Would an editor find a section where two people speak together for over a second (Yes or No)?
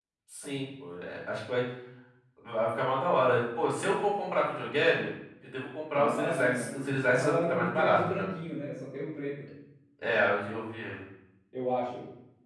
Yes